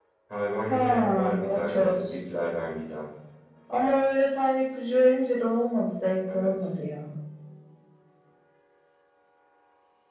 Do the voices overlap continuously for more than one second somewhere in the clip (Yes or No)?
Yes